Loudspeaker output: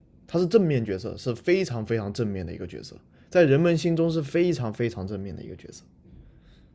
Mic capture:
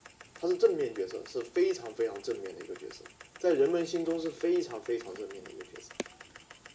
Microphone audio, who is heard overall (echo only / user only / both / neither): echo only